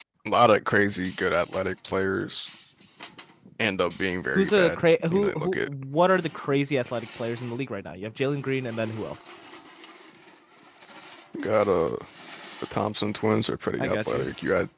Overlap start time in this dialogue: 4.3 s

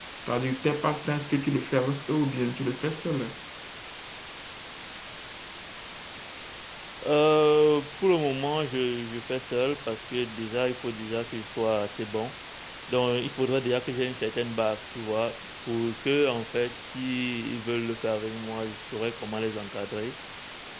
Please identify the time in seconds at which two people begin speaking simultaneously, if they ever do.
none

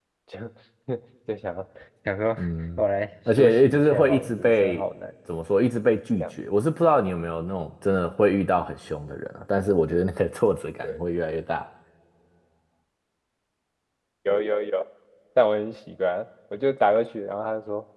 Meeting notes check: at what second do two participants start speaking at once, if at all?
3.4 s

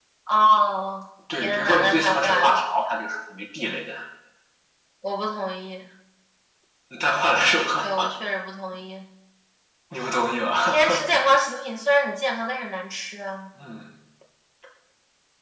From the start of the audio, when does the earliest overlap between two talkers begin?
1.4 s

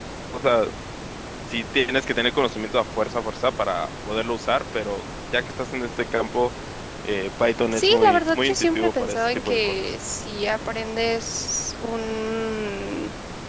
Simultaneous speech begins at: 7.7 s

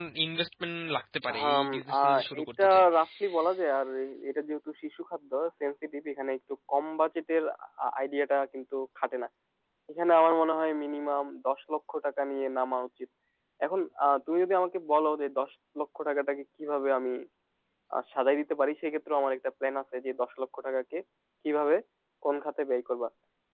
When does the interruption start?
1.3 s

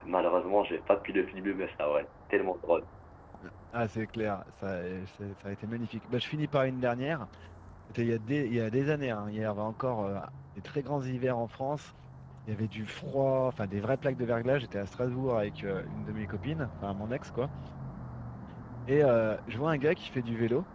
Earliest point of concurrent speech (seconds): none

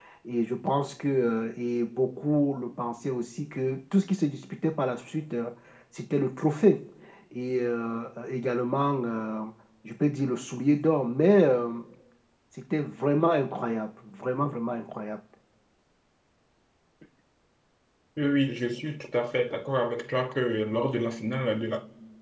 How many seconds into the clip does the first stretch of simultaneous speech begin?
none

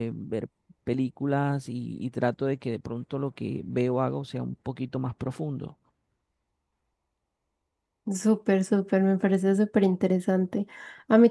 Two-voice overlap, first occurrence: none

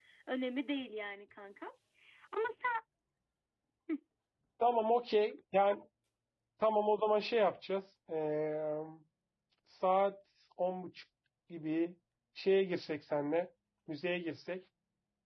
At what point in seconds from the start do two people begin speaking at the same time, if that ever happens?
none

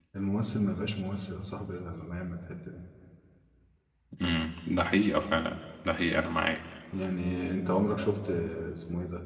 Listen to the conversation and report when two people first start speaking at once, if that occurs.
none

